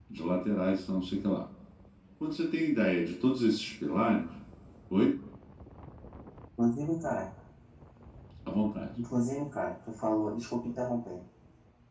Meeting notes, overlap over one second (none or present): none